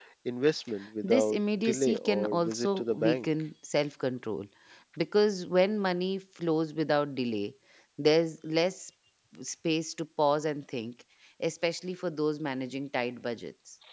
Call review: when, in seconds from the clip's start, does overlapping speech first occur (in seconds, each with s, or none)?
1.0 s